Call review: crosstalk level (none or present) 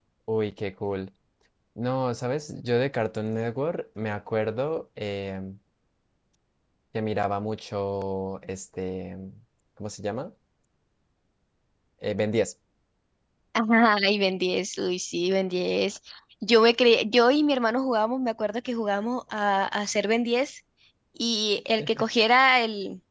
none